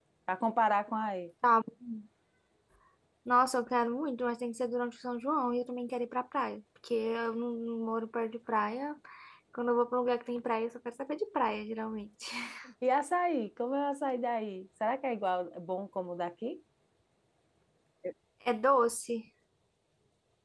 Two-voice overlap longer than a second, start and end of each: none

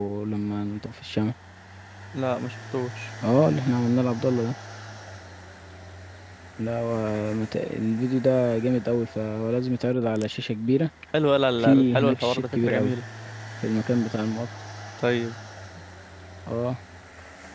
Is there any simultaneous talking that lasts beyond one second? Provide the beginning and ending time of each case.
11.6-12.9

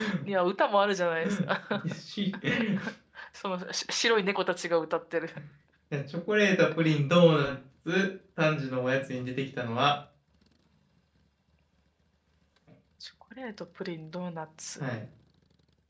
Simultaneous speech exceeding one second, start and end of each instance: none

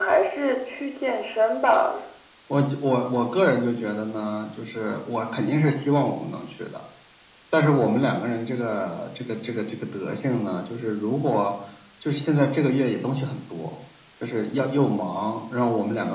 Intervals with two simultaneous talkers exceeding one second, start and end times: none

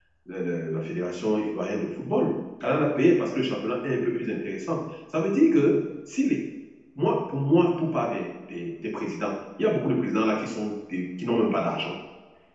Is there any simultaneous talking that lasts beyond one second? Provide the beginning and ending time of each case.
none

